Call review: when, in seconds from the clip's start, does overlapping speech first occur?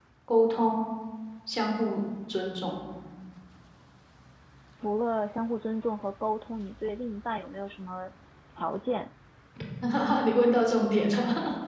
none

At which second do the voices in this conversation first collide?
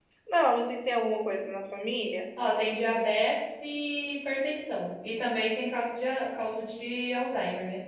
none

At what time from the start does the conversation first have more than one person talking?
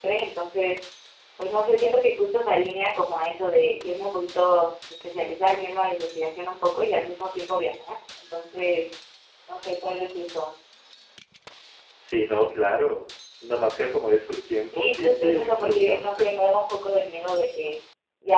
14.7 s

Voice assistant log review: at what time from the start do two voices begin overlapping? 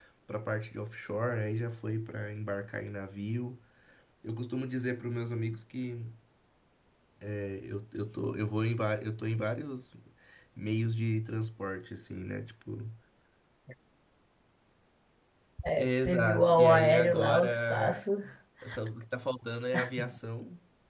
15.8 s

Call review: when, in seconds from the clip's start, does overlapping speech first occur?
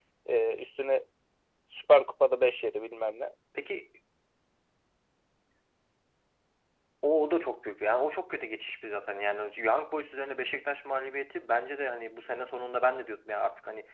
none

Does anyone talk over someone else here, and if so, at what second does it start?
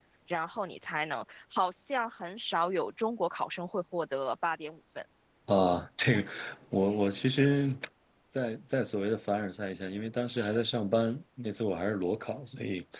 none

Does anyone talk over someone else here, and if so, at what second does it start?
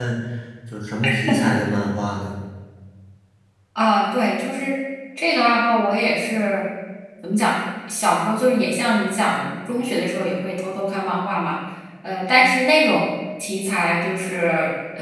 none

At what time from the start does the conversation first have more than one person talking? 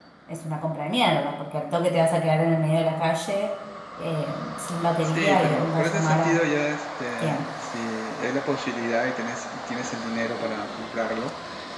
5.0 s

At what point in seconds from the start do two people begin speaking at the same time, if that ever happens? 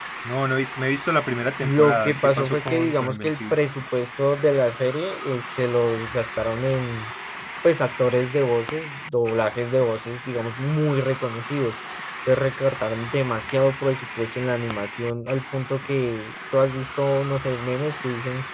1.6 s

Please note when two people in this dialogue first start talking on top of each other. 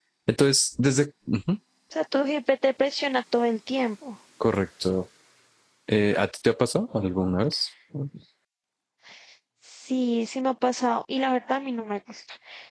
none

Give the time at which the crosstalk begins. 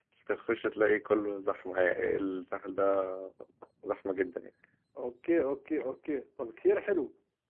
none

